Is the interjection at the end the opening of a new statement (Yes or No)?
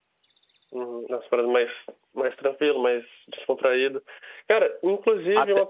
No